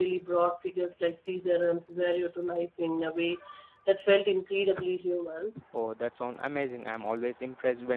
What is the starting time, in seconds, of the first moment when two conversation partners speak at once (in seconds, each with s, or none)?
none